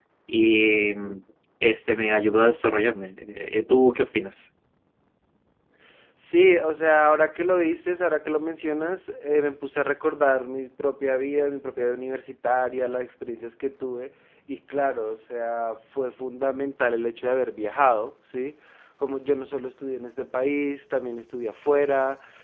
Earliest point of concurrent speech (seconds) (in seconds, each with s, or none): none